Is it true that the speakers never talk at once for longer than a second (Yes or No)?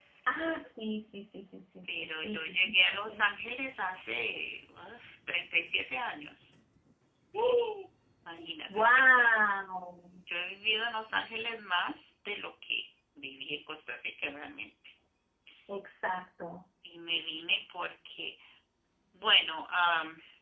No